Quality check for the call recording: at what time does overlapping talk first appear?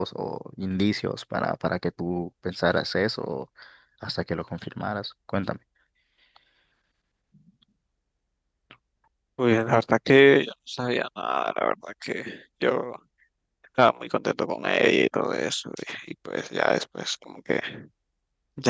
none

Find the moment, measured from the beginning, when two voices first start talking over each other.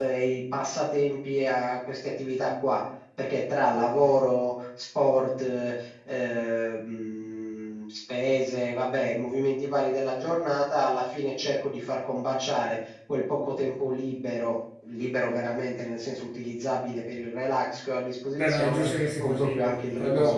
18.4 s

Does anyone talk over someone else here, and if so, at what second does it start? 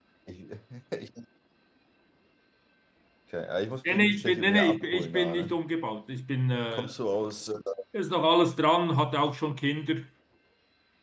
3.9 s

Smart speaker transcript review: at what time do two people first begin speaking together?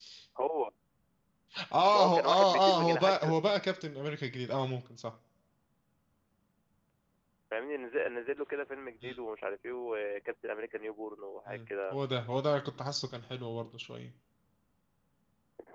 1.9 s

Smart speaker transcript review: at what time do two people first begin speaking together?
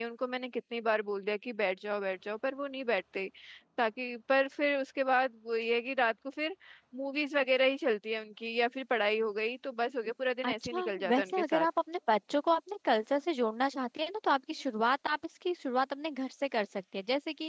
10.4 s

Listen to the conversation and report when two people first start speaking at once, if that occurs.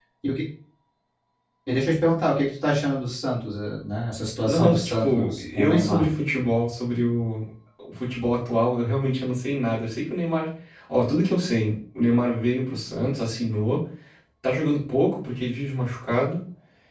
4.5 s

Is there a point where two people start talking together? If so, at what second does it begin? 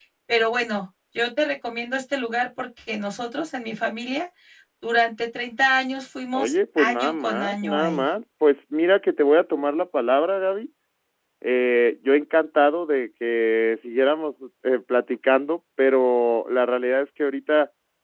6.3 s

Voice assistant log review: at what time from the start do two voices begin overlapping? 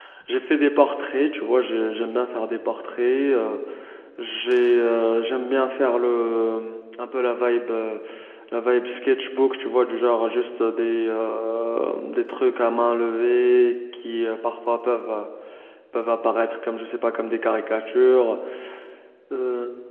none

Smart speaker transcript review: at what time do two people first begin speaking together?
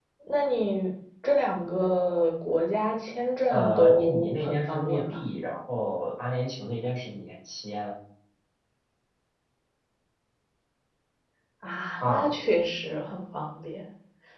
3.5 s

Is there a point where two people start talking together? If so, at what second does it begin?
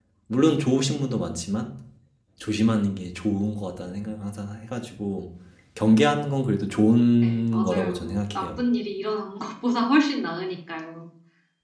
7.2 s

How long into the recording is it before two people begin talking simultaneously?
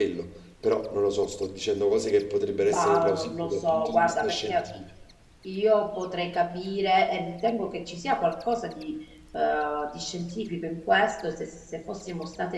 2.6 s

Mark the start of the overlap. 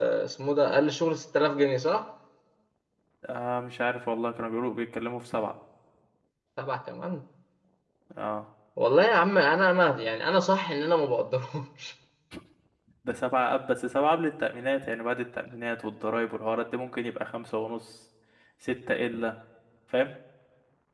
none

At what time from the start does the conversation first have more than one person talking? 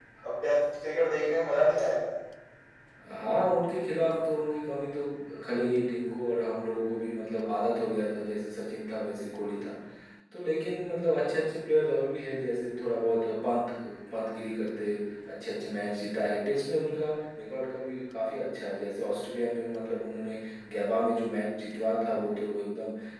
none

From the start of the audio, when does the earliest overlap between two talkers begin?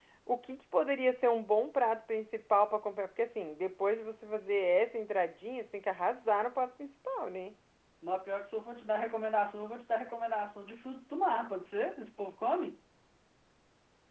none

